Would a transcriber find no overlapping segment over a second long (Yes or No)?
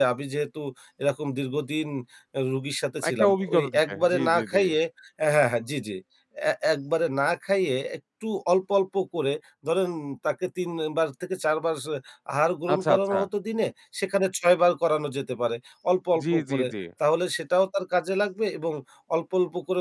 No